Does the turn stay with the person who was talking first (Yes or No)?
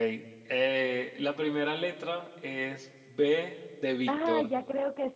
No